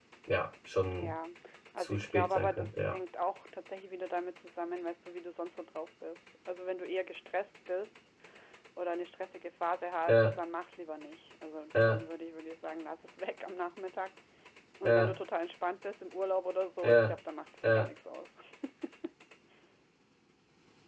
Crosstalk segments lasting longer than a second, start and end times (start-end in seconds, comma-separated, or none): 1.8-3.0